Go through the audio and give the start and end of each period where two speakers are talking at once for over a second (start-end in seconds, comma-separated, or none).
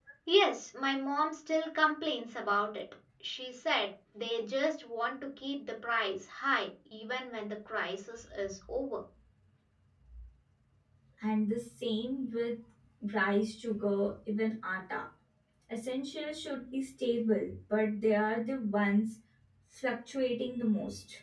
none